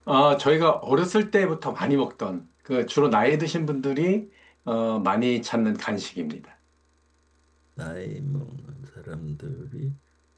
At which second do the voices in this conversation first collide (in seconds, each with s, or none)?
none